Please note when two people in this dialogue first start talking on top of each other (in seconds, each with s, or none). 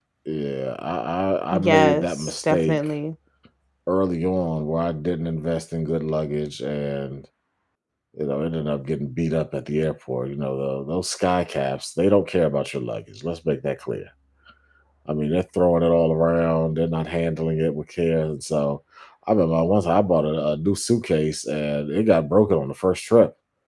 1.6 s